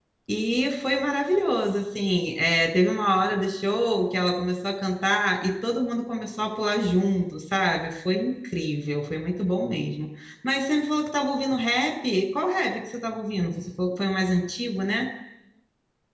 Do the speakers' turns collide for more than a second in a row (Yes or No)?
No